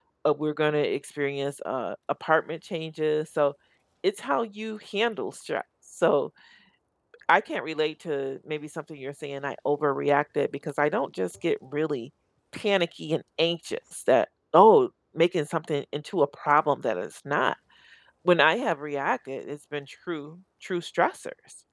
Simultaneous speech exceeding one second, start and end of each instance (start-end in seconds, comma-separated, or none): none